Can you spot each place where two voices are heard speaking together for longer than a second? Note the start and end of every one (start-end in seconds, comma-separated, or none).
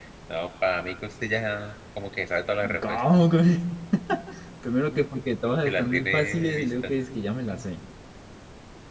5.6-6.9